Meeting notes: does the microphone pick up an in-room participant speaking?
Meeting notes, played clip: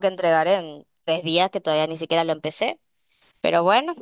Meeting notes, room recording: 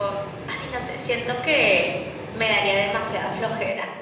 Yes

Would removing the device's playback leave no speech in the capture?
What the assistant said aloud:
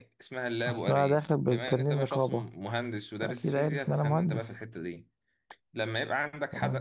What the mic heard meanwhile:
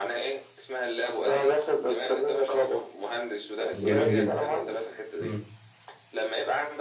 No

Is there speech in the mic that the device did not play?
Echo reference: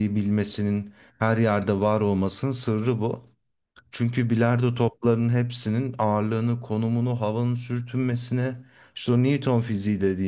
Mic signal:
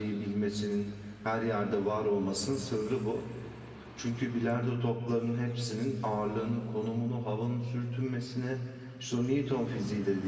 No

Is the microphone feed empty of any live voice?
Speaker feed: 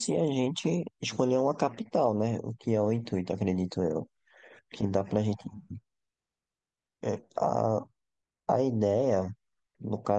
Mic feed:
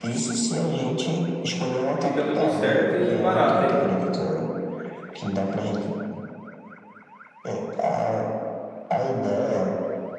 No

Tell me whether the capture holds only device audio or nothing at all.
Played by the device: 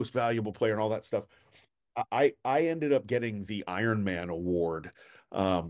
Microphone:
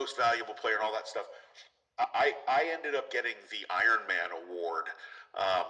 Yes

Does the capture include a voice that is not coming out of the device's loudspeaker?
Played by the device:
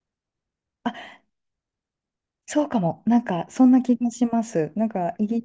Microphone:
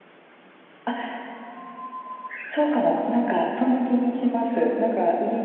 No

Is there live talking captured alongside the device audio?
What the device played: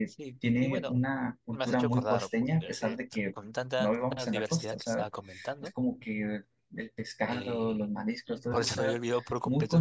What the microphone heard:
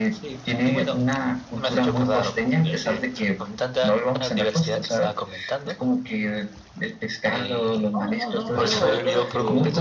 Yes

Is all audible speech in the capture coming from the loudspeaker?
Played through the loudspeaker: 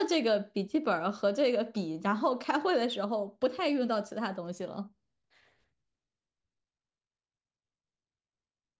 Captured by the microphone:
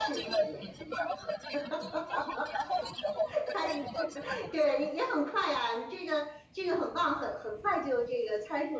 No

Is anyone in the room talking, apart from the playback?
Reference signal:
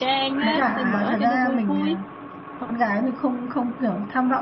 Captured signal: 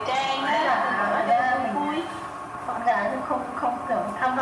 No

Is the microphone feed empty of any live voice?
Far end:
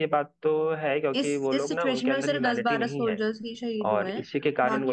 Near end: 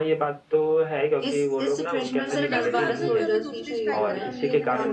No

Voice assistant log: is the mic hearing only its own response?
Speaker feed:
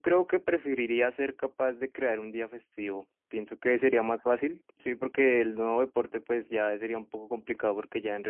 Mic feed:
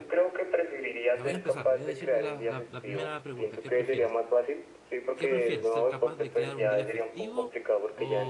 No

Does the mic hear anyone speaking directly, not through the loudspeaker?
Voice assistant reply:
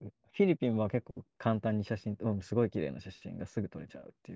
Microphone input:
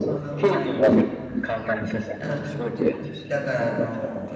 Yes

